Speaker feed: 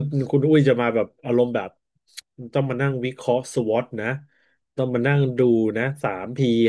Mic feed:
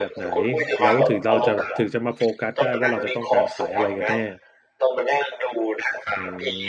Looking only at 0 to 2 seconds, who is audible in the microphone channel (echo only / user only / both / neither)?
both